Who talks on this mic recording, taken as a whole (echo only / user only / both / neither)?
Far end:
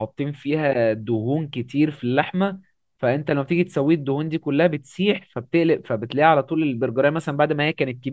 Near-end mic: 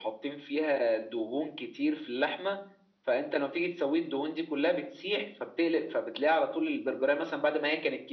echo only